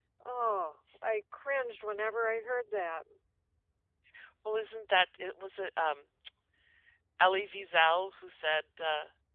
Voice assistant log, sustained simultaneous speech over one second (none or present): none